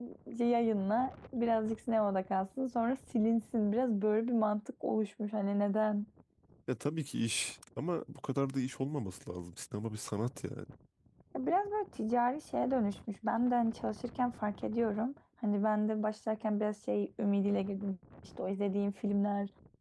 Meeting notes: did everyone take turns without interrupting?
Yes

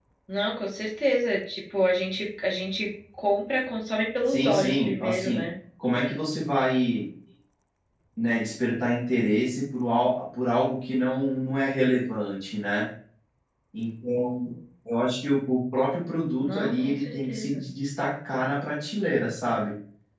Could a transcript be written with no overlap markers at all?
No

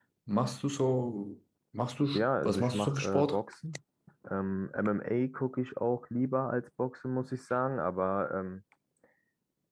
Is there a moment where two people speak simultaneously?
Yes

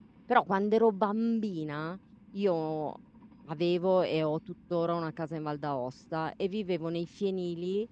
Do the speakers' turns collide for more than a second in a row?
No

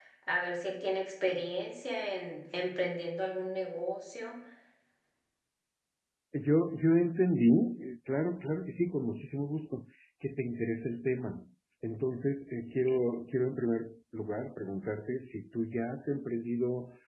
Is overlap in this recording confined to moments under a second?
Yes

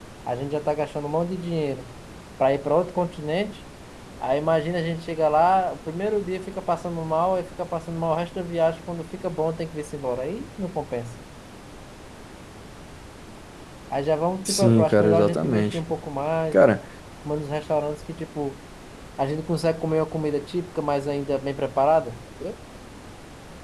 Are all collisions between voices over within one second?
No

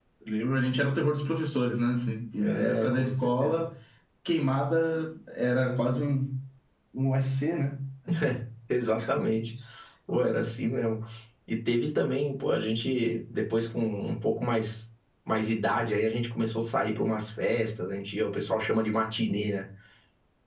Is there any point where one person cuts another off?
Yes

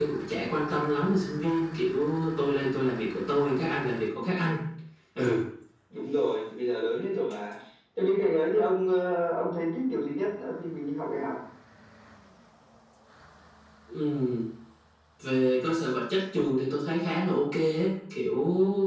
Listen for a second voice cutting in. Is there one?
No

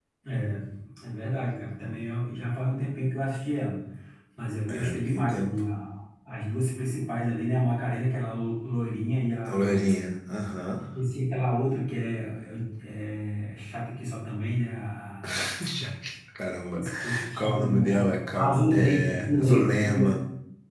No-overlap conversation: No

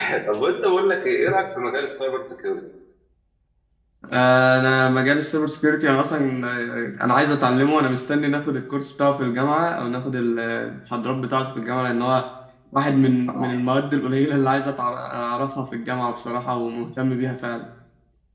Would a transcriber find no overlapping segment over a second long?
Yes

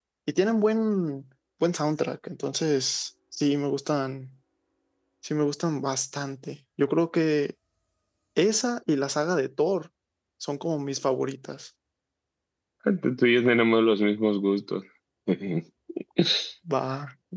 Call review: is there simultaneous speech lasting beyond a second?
No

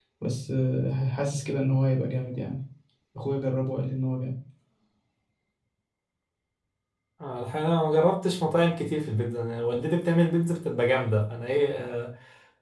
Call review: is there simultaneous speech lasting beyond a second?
No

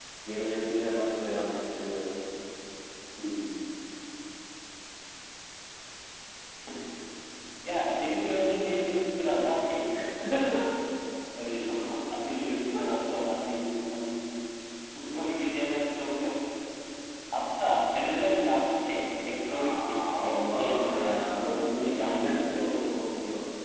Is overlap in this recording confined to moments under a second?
No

